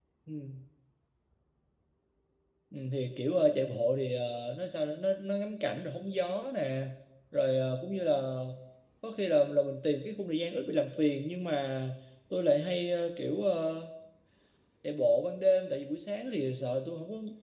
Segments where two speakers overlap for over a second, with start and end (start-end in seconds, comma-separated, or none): none